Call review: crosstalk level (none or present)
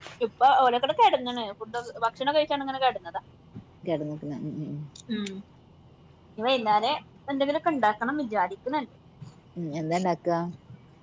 none